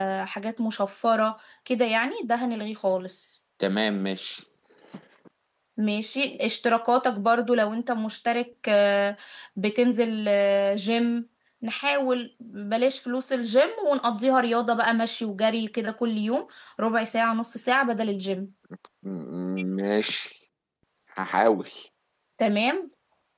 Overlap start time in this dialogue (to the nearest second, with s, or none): none